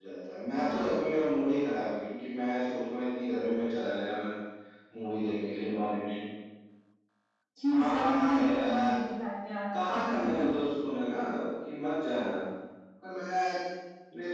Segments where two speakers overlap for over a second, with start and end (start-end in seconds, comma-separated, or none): 7.7-8.9